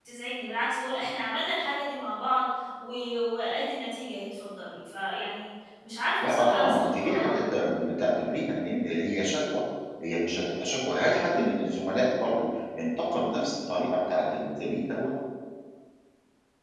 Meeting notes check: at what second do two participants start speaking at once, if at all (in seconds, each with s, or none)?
6.2 s